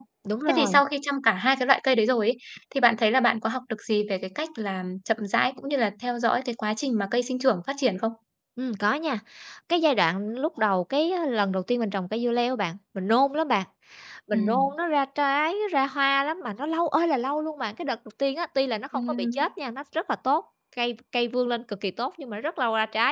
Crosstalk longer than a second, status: none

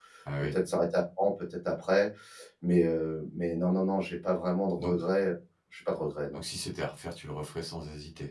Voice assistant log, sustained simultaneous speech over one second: none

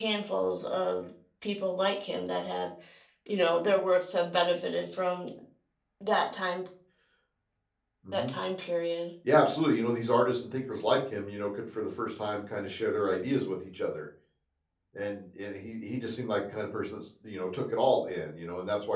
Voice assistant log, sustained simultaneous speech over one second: none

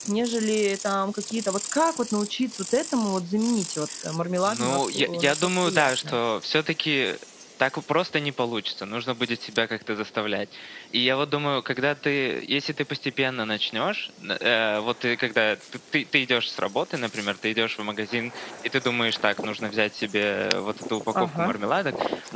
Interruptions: present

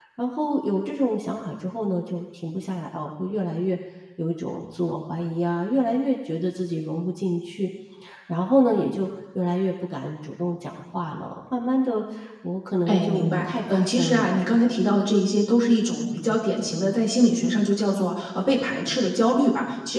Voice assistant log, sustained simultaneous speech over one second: present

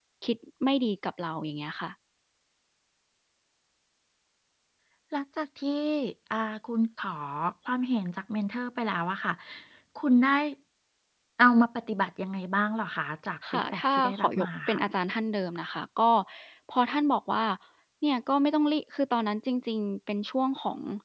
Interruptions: present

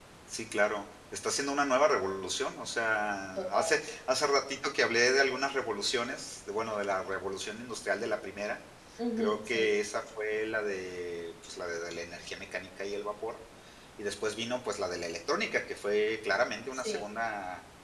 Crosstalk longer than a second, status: none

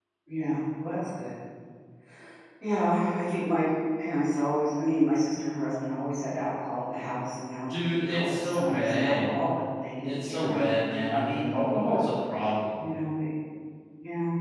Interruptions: present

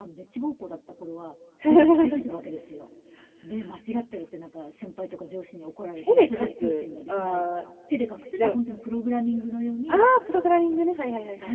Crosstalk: present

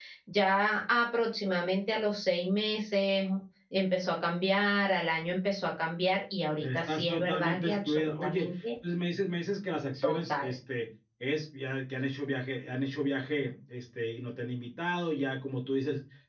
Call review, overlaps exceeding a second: present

